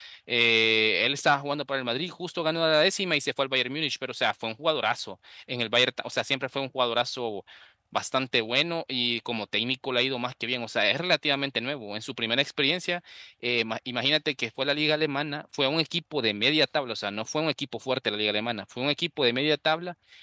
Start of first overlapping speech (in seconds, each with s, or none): none